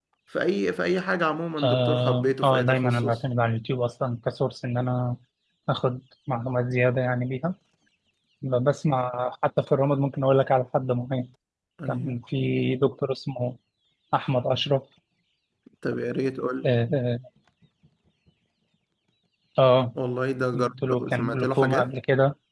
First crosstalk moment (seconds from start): 2 s

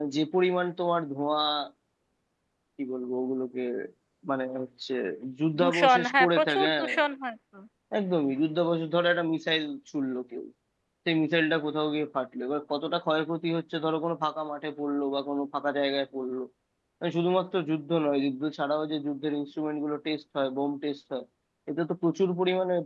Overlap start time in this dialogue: 6 s

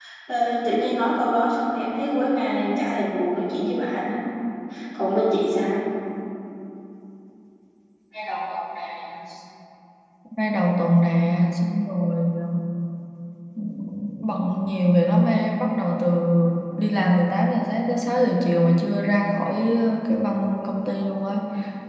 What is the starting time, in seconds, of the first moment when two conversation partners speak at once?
none

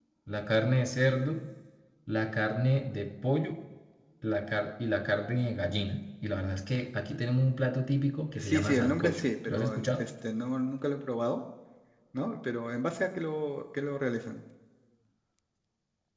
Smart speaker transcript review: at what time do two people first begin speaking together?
8 s

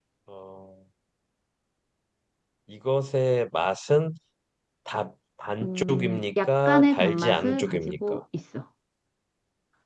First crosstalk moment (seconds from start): 6 s

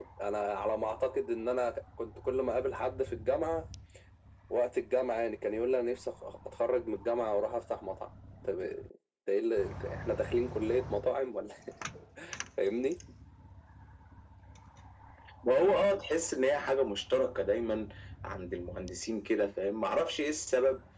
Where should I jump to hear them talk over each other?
none

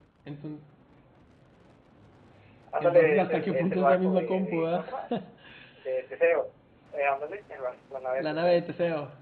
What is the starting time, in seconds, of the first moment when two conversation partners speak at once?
3 s

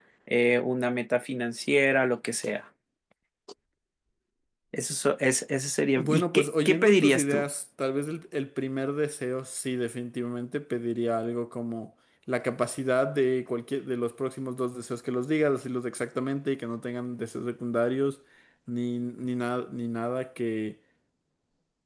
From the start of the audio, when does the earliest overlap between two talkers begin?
6 s

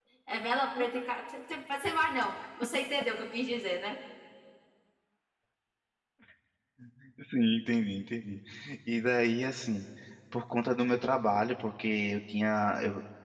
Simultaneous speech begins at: none

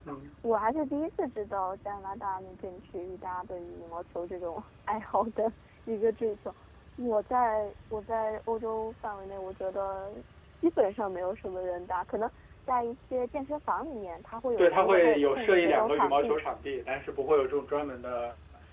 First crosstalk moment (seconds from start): 15 s

